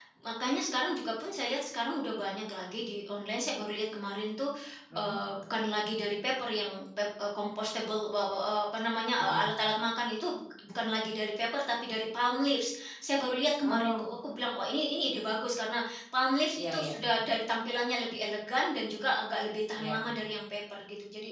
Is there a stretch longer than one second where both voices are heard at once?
No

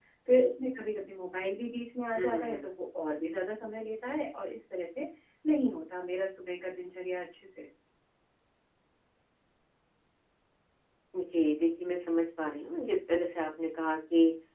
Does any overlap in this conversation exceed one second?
No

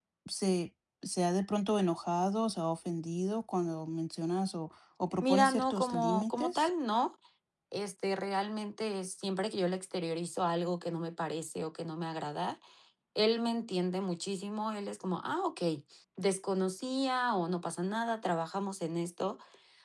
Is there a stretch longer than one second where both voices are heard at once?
Yes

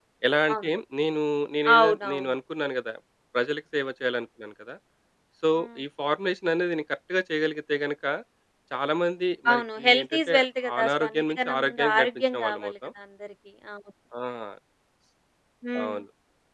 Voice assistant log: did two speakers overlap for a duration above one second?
Yes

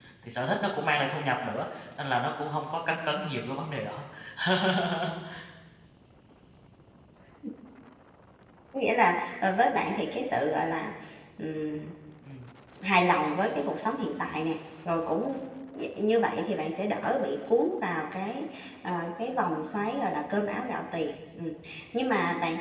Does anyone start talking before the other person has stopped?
No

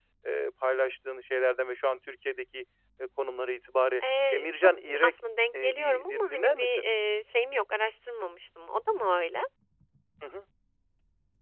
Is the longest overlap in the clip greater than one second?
Yes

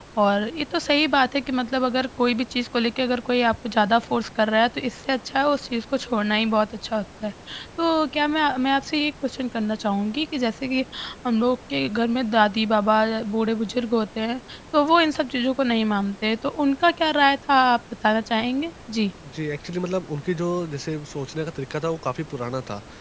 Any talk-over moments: No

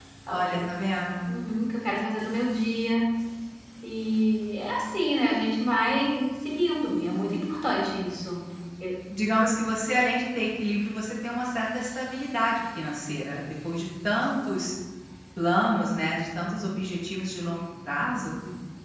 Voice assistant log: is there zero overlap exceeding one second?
Yes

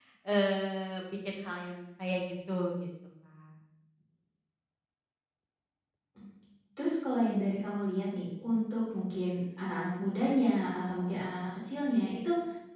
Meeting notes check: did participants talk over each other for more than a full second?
No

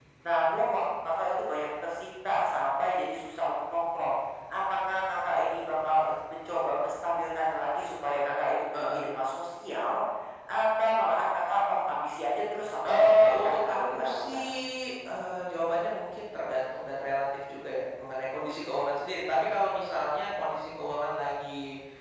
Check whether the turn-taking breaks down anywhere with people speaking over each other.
Yes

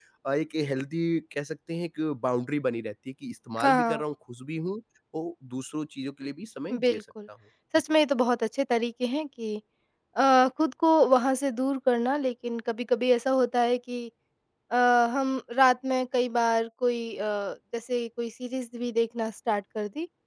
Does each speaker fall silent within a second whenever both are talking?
Yes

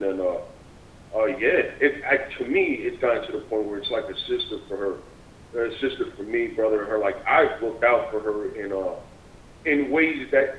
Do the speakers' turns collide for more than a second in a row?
No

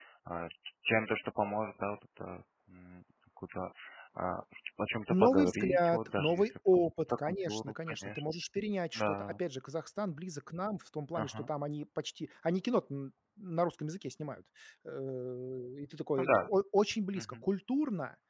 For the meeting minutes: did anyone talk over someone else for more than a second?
Yes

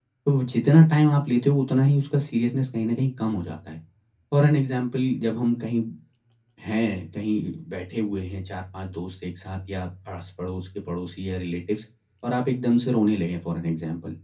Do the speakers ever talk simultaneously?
No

